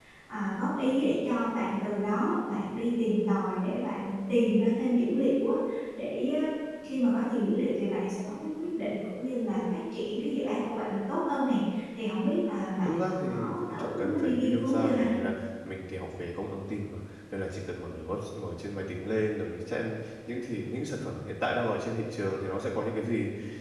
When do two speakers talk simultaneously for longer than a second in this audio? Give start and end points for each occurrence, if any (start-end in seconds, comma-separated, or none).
12.8-15.1